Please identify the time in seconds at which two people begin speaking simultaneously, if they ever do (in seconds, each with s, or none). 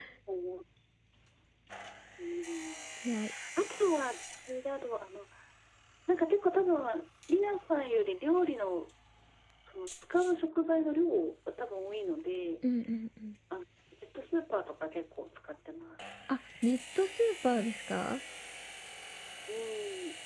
none